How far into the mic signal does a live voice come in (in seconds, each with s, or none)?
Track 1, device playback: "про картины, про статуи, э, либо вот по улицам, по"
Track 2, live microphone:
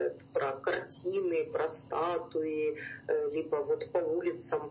none